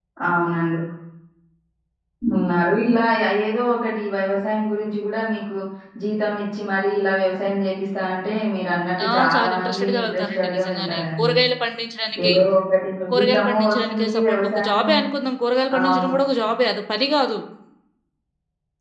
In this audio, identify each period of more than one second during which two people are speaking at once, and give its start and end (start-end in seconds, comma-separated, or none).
9.1-11.3, 13.1-14.9